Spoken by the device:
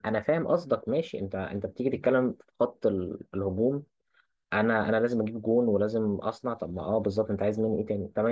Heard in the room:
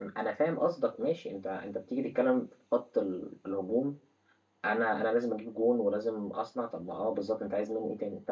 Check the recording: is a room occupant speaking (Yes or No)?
No